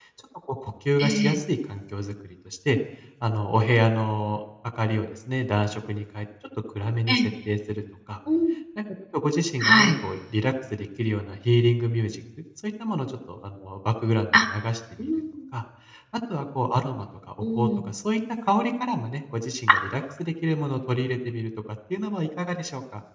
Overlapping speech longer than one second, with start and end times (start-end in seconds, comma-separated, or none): none